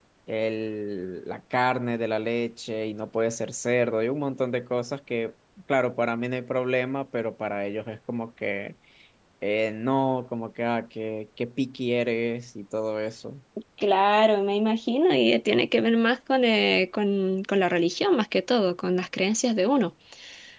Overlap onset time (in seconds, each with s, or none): none